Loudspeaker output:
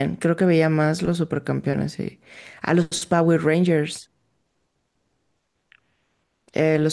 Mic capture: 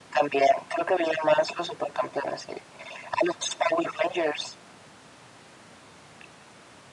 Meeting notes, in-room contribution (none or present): none